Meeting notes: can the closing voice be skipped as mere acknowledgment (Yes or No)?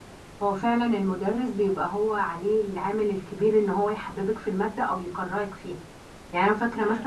Yes